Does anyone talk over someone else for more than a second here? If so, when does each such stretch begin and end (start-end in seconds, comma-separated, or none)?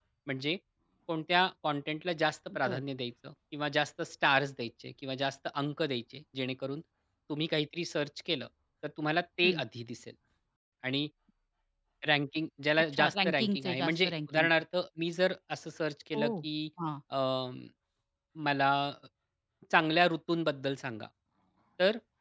12.9-14.5